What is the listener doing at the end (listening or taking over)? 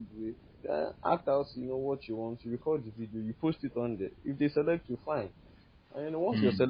listening